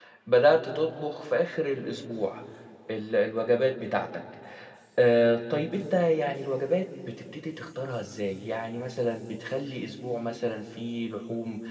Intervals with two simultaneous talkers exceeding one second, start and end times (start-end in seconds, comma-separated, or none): none